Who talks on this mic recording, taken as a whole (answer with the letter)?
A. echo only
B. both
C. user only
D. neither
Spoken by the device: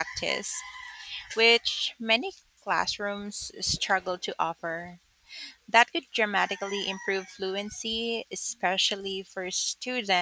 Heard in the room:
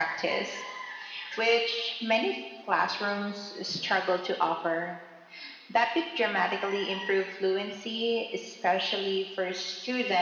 A